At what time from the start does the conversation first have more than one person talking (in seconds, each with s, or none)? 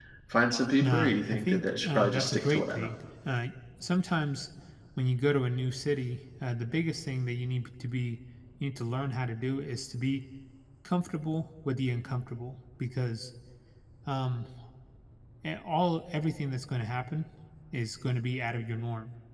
0.8 s